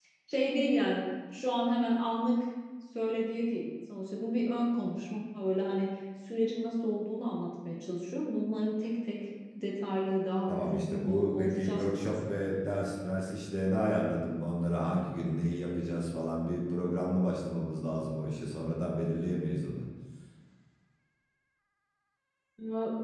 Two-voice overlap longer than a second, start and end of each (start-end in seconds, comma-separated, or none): 10.5-12.3